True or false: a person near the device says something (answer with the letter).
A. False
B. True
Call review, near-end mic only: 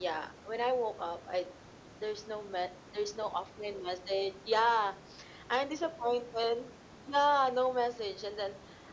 A